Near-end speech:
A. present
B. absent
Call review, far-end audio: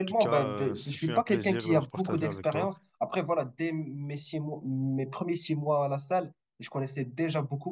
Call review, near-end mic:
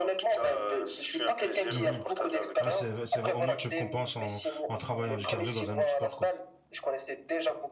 A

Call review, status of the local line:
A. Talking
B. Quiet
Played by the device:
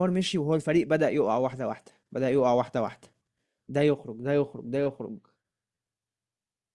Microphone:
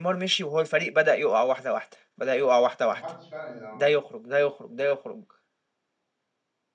A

